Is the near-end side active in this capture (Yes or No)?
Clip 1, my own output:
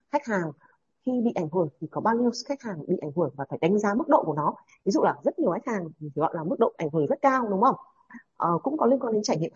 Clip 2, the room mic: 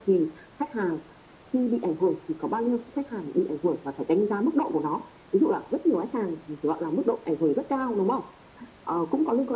No